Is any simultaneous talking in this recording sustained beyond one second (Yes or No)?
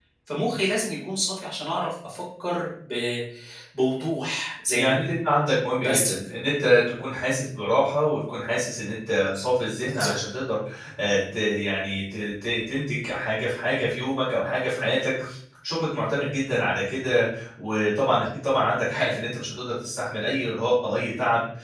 No